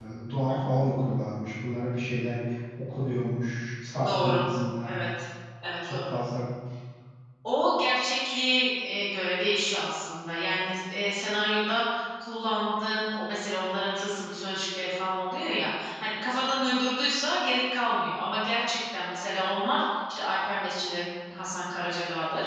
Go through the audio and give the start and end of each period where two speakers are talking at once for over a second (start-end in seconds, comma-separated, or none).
none